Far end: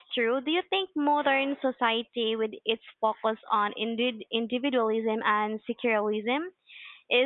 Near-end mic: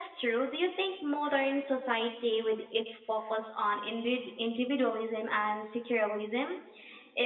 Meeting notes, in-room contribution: none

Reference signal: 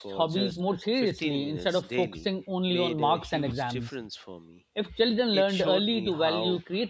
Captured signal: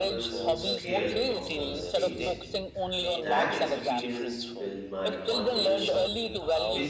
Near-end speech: present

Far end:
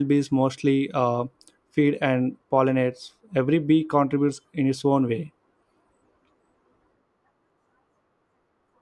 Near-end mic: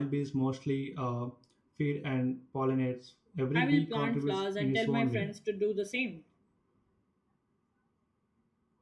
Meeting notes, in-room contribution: present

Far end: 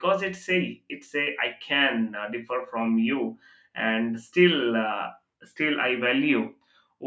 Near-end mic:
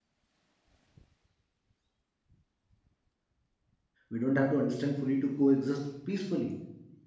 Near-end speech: present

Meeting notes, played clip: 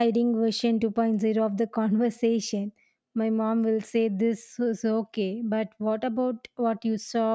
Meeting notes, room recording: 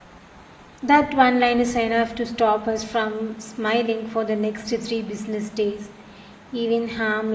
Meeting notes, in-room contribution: present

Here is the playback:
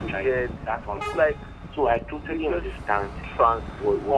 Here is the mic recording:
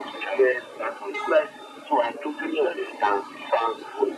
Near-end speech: none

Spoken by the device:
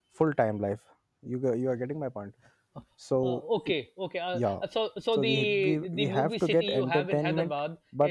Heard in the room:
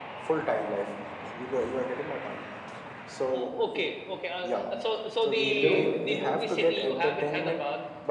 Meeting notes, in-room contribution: present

